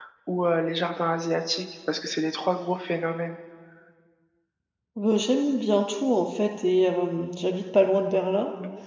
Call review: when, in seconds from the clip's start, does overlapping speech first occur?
none

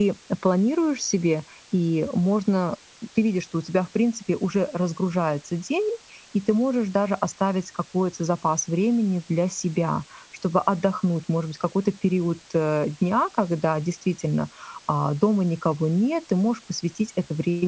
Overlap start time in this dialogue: none

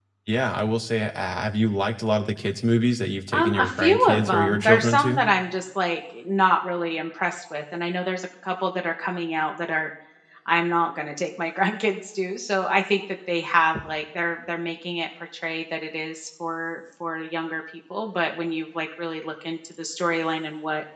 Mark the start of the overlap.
3.3 s

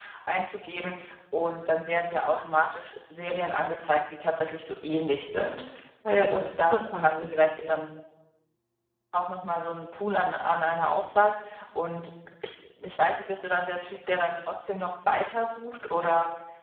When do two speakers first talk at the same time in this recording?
6.3 s

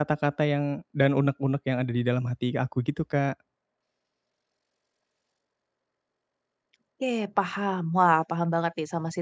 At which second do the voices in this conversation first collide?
none

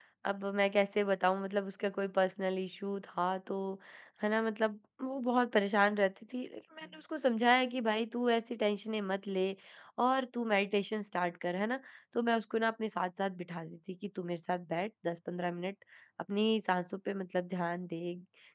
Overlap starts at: none

